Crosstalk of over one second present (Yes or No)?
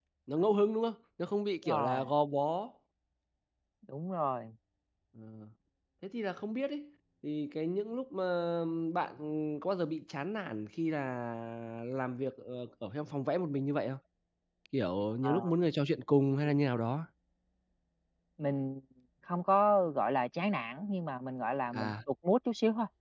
No